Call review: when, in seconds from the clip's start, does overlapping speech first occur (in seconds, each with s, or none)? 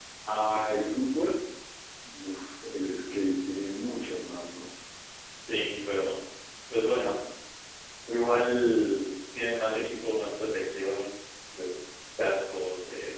none